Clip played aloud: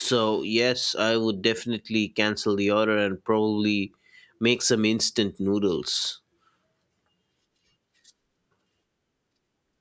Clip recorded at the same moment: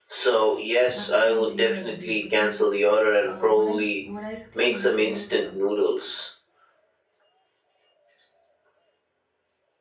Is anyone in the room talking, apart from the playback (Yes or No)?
Yes